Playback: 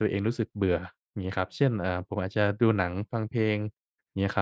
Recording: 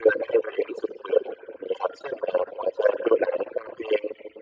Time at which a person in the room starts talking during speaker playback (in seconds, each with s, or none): none